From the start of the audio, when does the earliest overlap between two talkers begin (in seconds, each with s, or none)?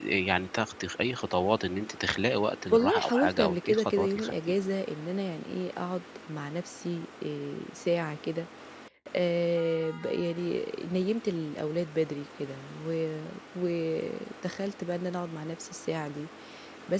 2.7 s